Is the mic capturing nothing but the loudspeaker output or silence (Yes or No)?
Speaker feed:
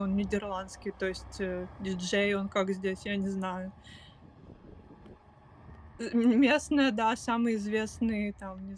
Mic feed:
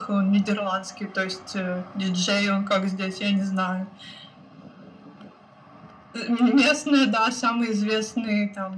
Yes